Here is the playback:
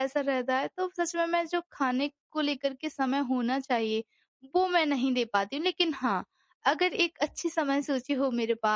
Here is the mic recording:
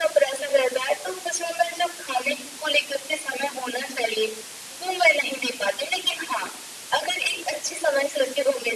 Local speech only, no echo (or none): none